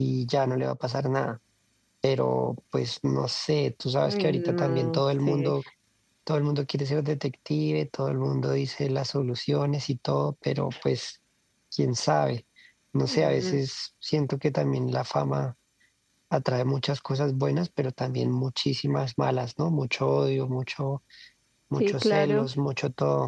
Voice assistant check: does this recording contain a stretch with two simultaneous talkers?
Yes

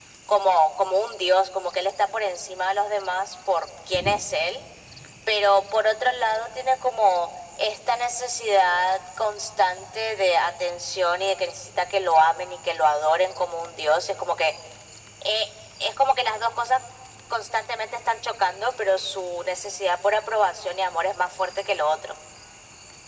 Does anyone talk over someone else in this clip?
No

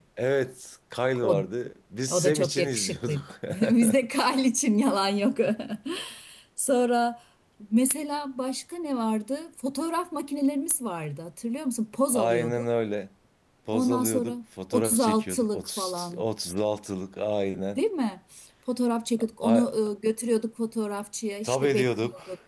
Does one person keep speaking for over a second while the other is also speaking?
Yes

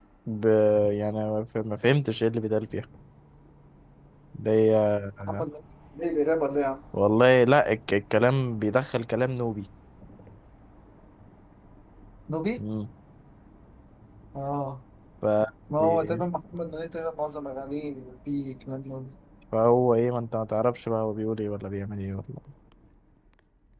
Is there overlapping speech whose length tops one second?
No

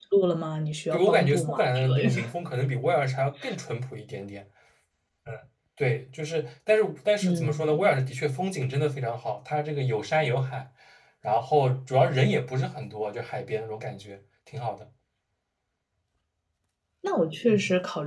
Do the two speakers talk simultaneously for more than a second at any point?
Yes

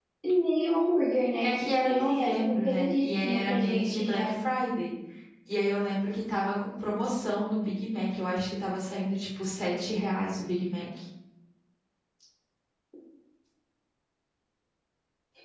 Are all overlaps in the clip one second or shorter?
No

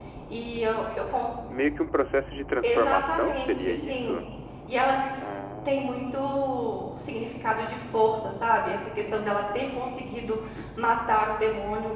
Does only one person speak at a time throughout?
No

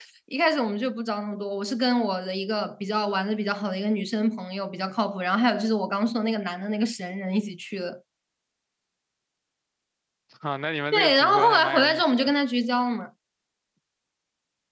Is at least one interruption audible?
Yes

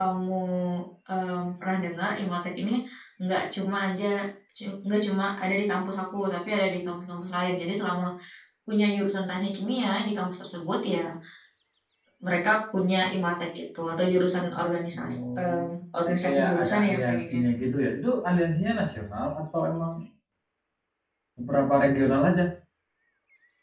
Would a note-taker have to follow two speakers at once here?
Yes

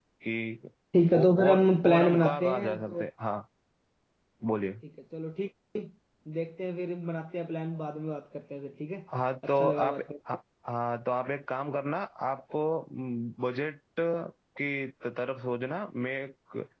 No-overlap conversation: No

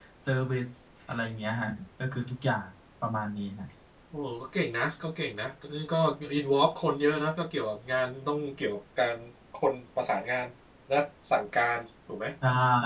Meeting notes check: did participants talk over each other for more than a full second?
No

